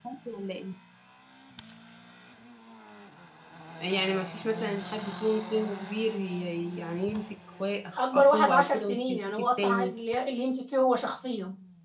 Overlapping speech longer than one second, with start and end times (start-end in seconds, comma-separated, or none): 8.0-9.9